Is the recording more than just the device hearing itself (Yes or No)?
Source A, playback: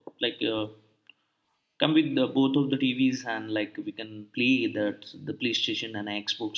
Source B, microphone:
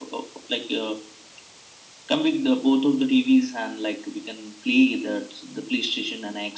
No